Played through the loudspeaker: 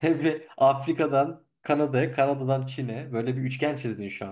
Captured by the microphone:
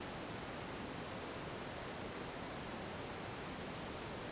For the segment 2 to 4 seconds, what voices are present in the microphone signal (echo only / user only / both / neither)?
neither